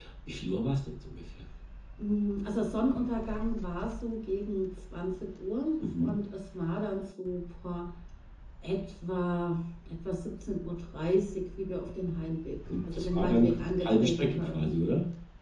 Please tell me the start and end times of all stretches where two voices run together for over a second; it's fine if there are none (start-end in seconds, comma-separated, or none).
12.9-14.7